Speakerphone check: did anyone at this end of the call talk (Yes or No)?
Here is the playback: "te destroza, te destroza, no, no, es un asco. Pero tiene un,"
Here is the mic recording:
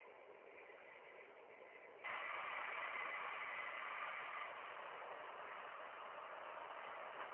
No